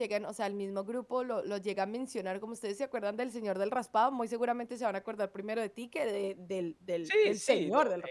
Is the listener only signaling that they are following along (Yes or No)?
No